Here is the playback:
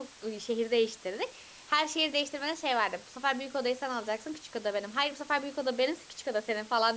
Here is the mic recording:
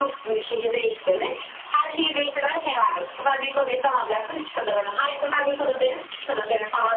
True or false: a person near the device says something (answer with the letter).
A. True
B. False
B